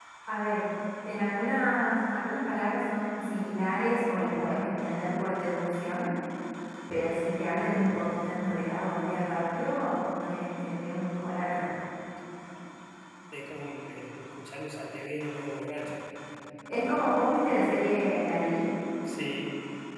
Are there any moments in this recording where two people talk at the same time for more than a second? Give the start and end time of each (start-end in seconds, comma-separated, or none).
none